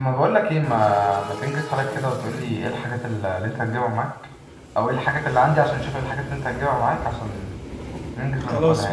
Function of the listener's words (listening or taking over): taking over